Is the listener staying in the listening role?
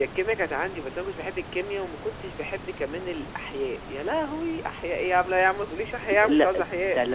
No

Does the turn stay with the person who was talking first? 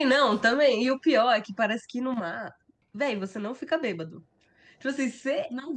Yes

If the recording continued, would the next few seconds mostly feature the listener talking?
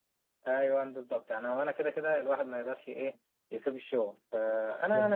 No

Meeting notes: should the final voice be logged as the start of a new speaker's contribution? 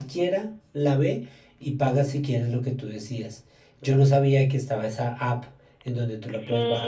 Yes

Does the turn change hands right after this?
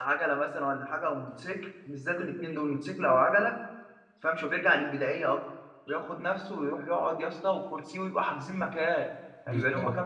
No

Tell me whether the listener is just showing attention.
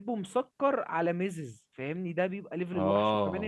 Yes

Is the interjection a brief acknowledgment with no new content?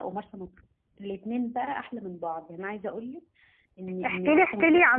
No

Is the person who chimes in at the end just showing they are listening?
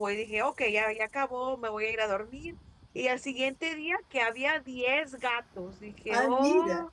Yes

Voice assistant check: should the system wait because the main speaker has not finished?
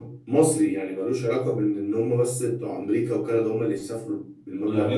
No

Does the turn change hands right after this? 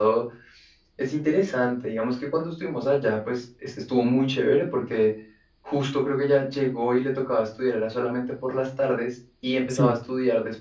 No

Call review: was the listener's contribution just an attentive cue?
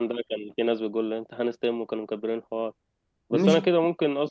Yes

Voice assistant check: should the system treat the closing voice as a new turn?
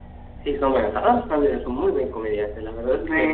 Yes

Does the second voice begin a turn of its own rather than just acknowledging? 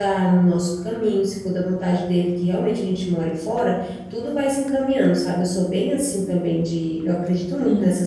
No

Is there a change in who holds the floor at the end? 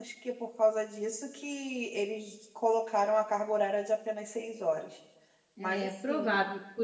Yes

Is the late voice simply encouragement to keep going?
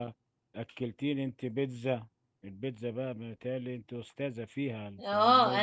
No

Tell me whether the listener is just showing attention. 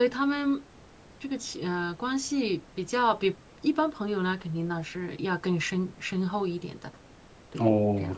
No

